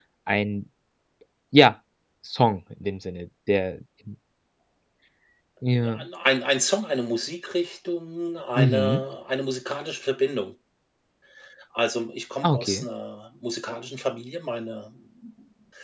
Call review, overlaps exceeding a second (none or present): none